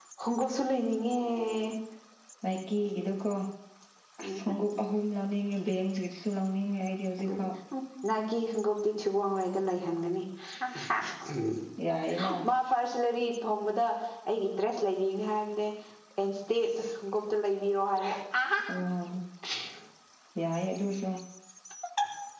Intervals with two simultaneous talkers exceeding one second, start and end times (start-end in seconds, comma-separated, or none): none